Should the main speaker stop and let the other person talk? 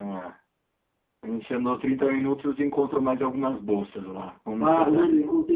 Yes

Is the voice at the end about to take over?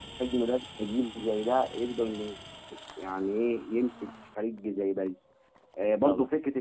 No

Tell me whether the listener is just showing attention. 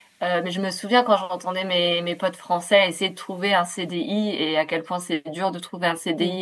Yes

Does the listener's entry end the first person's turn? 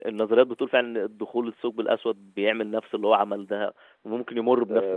Yes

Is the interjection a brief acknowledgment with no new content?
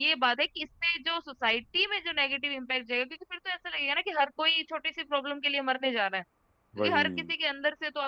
Yes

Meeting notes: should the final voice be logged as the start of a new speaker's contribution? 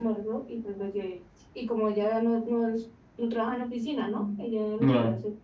No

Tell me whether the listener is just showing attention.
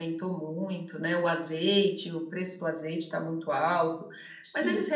Yes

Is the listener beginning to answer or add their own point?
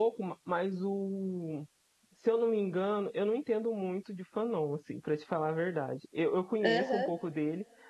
No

